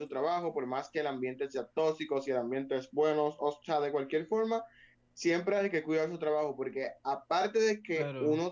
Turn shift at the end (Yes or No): No